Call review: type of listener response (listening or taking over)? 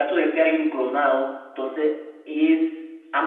taking over